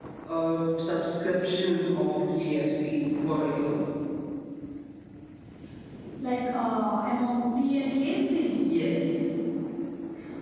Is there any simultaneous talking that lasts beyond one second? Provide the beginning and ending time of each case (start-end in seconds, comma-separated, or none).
none